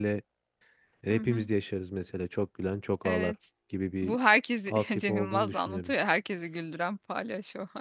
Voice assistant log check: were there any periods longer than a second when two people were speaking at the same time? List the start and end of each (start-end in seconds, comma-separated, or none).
4.7-5.9